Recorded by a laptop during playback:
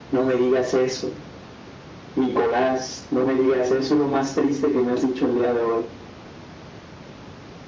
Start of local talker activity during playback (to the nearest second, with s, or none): none